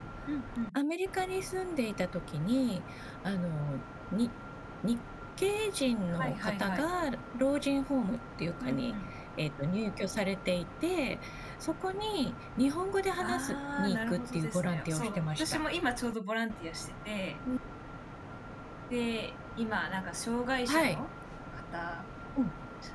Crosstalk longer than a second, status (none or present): present